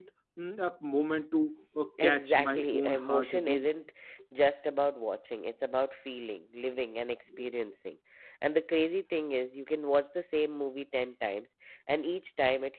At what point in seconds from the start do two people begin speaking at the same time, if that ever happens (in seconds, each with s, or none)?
2.0 s